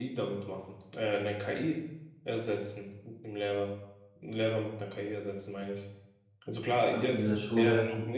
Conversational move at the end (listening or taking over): taking over